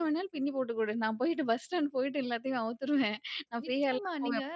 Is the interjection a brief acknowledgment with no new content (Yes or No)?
No